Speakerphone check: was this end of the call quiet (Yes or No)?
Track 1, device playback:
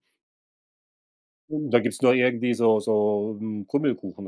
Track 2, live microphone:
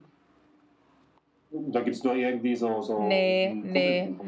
No